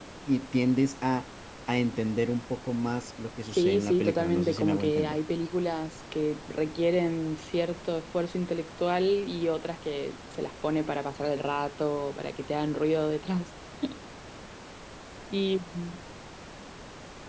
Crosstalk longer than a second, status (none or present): present